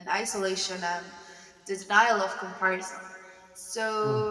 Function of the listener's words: listening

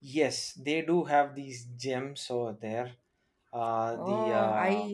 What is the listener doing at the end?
taking over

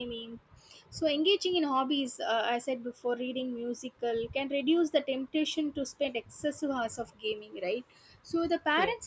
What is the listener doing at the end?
listening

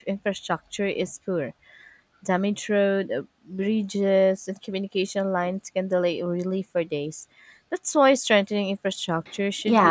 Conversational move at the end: taking over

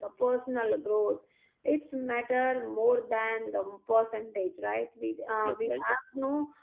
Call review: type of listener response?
listening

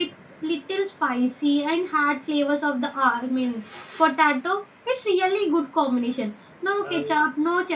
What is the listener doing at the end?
listening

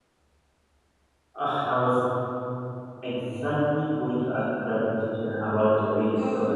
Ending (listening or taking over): listening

